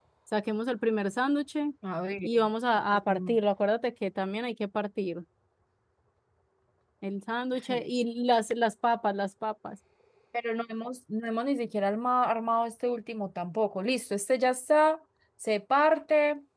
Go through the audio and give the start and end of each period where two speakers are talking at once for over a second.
none

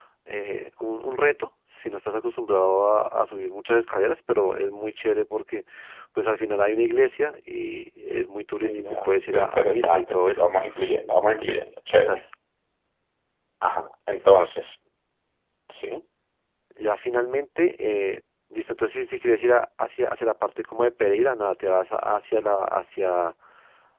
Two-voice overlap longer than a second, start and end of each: 8.6-10.4

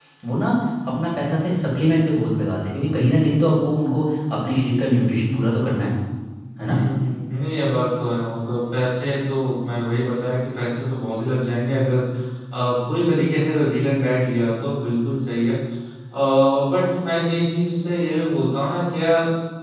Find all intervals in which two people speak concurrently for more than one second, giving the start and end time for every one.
none

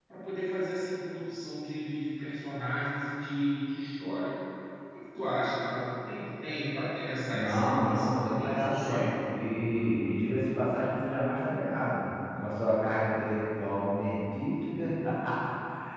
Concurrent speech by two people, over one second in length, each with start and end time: 7.3-9.2

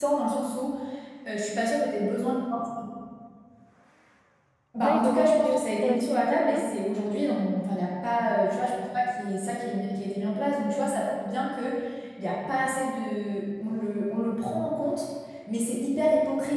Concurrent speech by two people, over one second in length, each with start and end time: 4.8-6.7

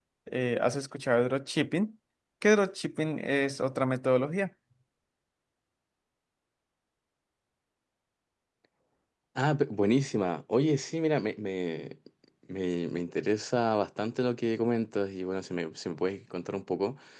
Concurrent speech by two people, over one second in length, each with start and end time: none

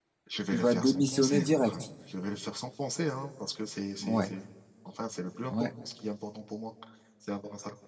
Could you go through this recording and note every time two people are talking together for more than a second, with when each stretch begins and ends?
0.5-1.8

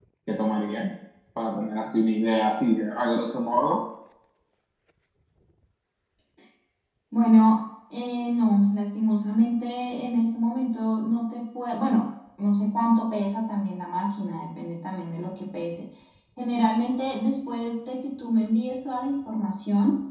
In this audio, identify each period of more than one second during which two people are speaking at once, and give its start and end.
none

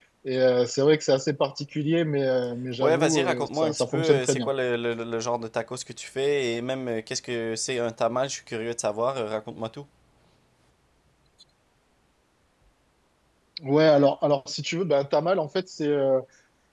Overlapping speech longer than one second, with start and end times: 2.8-4.5

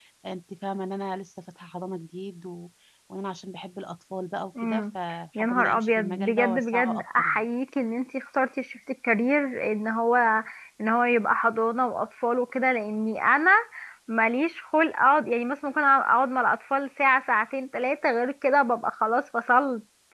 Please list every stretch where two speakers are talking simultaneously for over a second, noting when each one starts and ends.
5.4-7.4

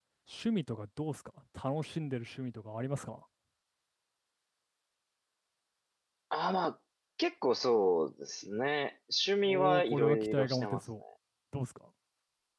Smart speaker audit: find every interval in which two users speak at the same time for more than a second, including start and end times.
9.4-11.0

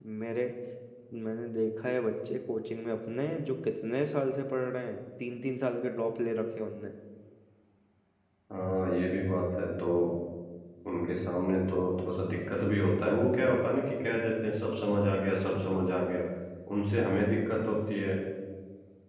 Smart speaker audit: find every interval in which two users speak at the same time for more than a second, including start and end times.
none

